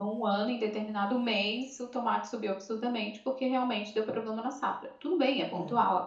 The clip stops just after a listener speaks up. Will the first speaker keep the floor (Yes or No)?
Yes